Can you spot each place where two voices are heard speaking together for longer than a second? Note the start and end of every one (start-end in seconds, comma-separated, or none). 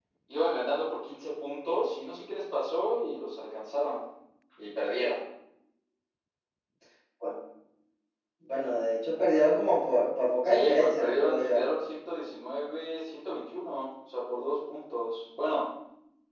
10.4-11.7